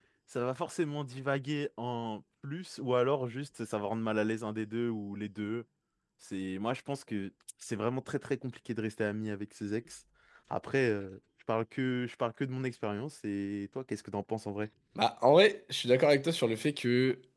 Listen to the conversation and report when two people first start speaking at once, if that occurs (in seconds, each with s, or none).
none